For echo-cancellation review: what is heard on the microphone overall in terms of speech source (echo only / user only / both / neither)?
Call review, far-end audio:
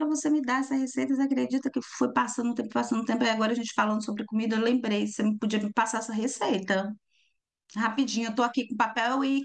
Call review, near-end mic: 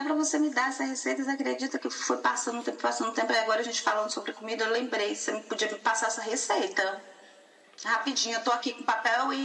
echo only